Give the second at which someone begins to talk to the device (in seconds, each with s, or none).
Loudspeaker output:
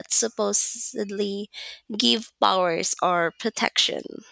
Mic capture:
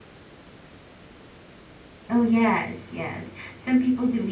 2.1 s